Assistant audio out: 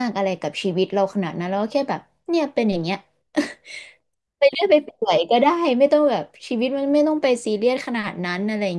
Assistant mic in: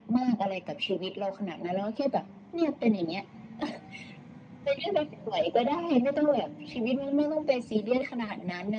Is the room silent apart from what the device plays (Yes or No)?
Yes